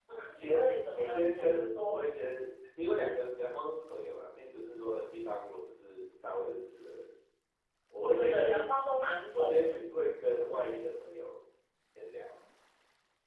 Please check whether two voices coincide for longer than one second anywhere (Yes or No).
Yes